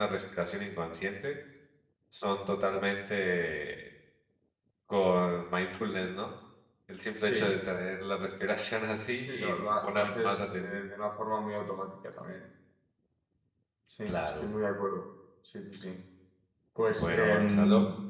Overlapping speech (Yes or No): Yes